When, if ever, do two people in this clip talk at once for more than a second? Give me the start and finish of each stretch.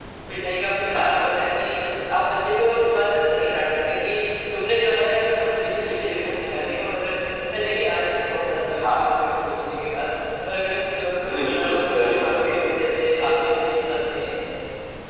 11.3-12.6

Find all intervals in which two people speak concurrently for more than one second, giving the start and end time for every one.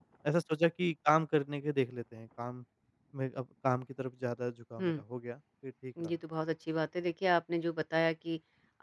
none

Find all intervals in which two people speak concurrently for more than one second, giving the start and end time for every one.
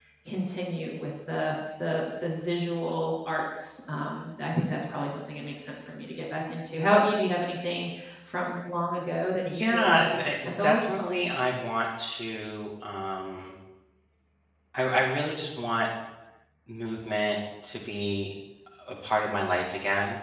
9.5-10.8

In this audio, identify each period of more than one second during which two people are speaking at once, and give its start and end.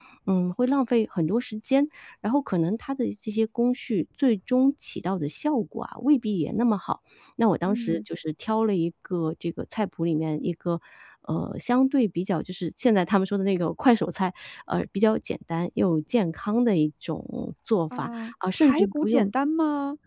18.0-19.3

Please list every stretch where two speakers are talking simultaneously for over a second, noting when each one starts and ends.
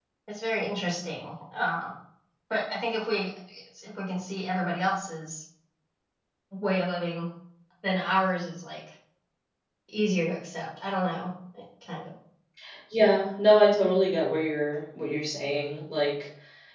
none

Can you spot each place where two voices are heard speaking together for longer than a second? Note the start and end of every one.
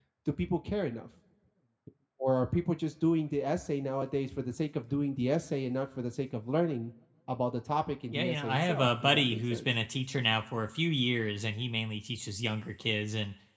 8.1-9.7

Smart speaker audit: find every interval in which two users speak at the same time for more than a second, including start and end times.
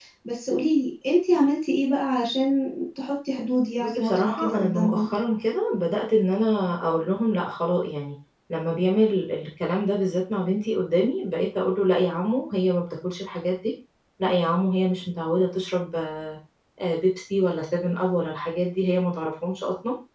3.8-5.1

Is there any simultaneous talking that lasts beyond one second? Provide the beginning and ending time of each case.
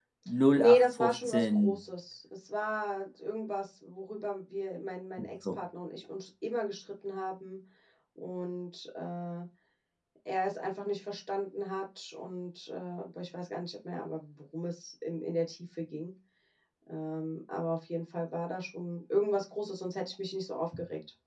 0.5-1.8

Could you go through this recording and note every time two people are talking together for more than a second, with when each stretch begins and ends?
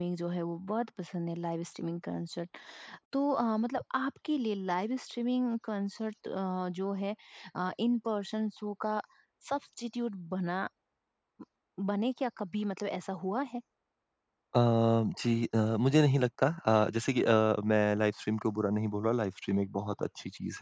none

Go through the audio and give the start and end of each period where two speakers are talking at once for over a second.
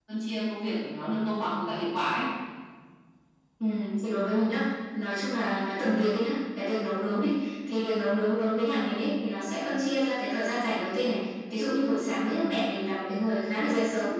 none

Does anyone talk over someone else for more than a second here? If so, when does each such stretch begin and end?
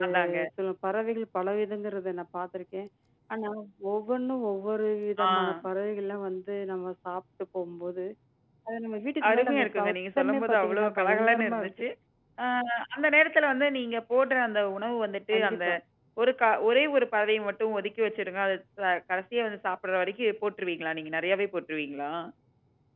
9.3-11.7

